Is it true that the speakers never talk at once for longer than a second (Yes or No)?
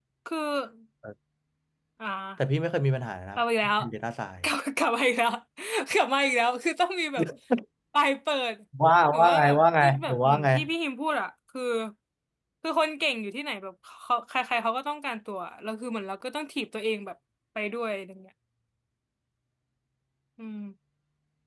No